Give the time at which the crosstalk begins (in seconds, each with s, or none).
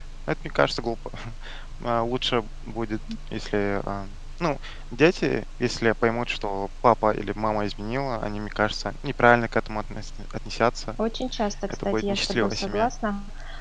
11.7 s